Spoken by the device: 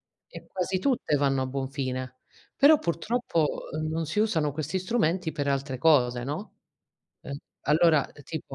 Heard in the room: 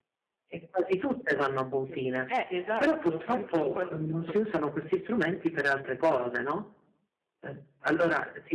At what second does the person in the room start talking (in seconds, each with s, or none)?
1.8 s